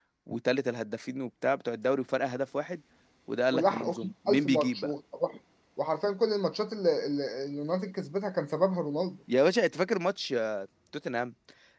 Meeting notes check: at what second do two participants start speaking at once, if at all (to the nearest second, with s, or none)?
4 s